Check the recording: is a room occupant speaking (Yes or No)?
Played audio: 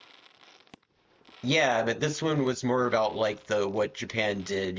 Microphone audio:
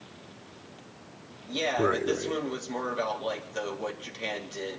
Yes